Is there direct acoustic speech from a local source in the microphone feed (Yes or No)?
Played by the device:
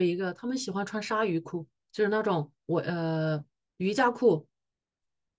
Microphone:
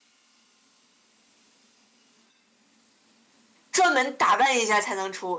Yes